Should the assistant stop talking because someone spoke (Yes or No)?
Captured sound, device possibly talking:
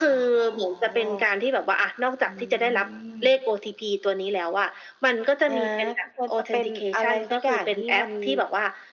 Yes